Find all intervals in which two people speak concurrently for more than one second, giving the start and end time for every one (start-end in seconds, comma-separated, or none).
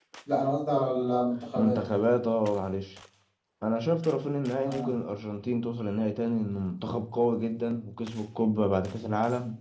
none